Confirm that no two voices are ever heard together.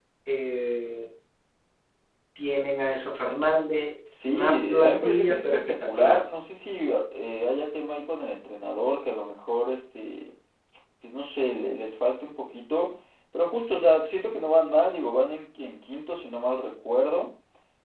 No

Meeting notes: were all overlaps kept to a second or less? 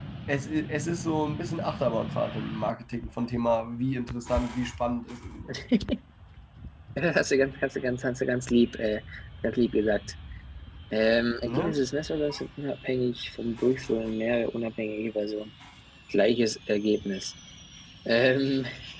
Yes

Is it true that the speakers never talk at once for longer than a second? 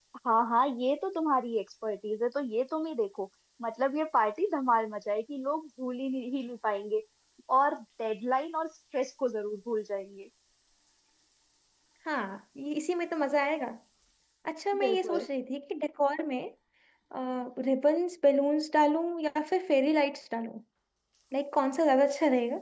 Yes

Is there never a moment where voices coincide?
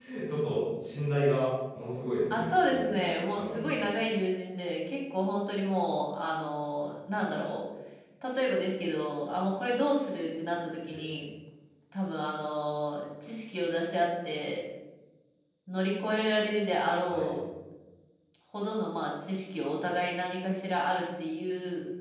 No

